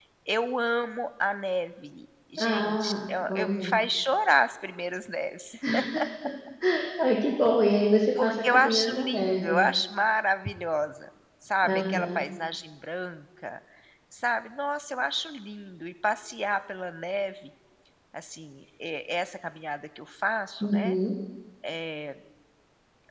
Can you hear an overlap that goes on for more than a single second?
Yes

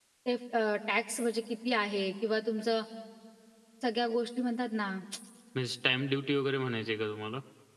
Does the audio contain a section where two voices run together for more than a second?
No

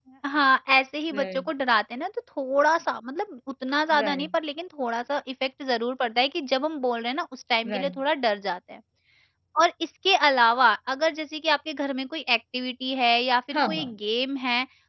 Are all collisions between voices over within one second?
Yes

